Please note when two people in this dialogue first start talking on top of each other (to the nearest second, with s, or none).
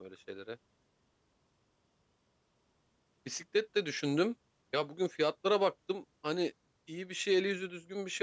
none